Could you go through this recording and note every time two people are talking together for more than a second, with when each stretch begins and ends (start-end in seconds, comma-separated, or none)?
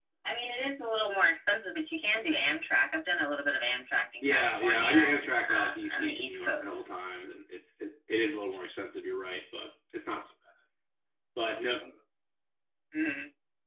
4.2-6.9